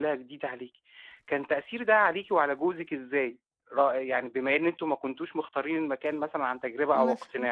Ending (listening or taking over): taking over